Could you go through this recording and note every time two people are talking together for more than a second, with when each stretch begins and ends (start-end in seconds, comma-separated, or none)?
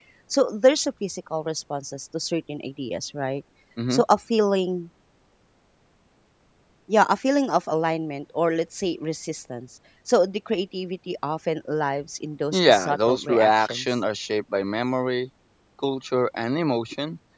12.5-13.8